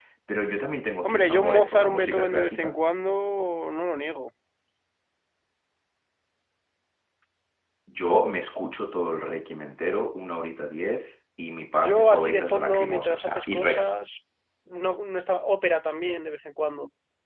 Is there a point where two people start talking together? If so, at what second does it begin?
1 s

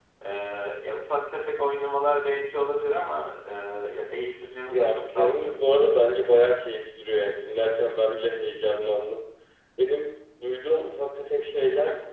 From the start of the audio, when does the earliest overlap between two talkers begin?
5 s

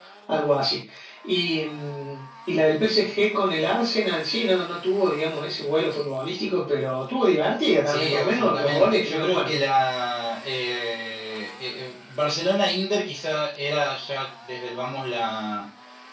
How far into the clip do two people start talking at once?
8 s

